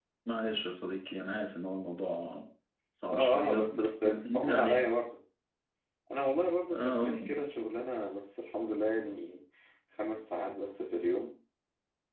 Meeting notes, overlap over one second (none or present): present